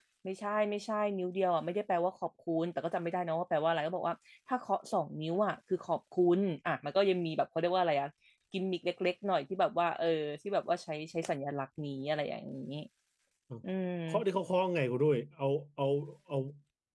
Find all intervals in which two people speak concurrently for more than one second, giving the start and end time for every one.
none

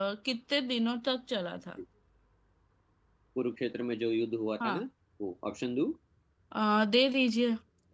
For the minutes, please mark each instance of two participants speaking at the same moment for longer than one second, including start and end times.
none

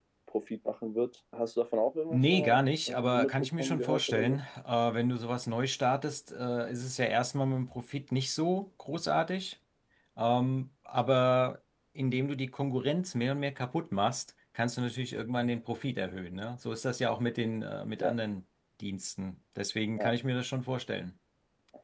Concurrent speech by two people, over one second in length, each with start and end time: 2.1-4.4

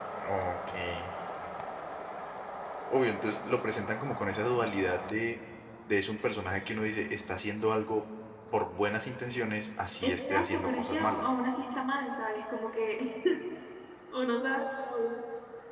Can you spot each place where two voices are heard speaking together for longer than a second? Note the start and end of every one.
10.0-11.3

